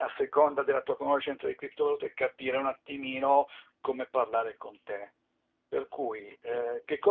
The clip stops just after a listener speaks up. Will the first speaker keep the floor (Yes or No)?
Yes